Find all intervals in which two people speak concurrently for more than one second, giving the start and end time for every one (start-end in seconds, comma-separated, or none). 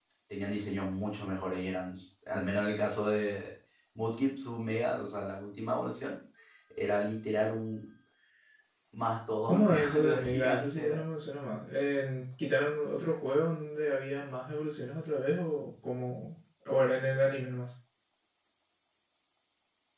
9.5-11.0